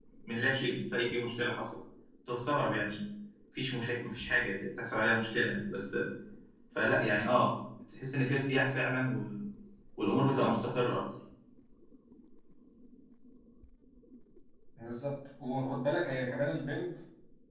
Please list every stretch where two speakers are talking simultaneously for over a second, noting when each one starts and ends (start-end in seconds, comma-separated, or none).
none